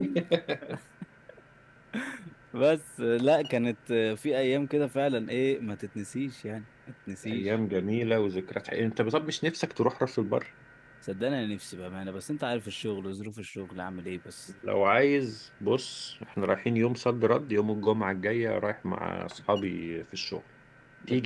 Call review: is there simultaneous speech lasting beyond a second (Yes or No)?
No